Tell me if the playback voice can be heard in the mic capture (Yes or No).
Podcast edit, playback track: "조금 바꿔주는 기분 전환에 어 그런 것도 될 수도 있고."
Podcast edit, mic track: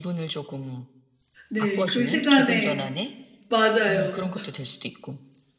Yes